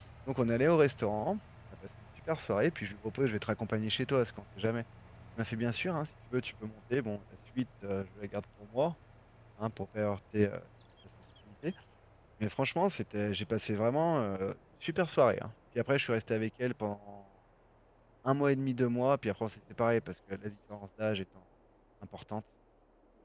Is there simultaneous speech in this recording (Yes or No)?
No